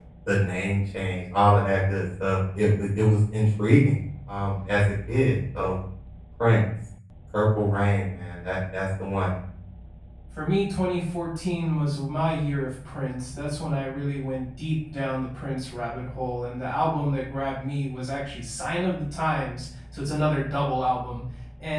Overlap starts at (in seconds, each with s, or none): none